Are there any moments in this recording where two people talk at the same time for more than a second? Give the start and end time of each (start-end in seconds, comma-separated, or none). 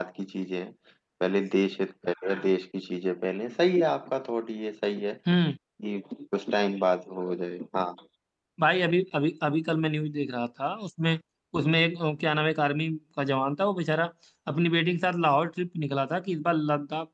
none